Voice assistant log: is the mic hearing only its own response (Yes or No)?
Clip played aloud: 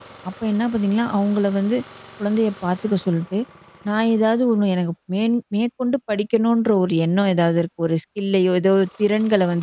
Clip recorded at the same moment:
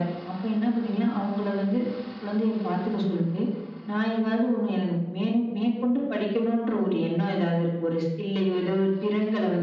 Yes